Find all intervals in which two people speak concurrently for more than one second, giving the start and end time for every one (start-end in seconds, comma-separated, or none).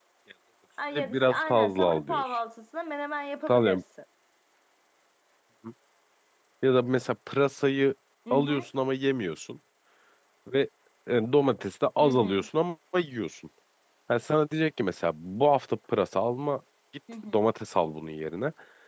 0.9-2.4